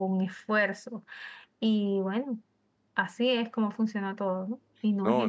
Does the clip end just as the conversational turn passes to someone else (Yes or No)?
Yes